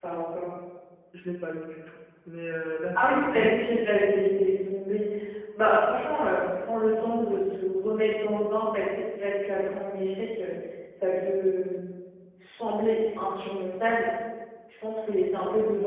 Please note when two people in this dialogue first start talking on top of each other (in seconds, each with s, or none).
2.9 s